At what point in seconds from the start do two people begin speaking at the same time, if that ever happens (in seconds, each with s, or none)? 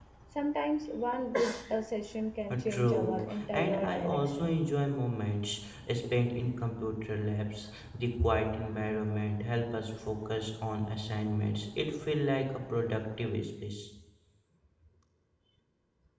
2.4 s